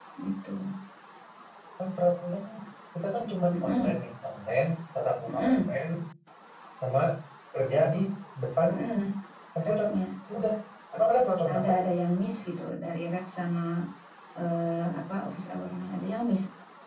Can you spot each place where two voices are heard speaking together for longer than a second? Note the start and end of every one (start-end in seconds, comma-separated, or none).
none